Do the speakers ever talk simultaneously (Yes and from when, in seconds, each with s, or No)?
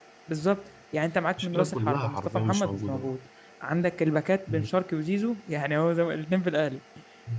Yes, from 1.4 s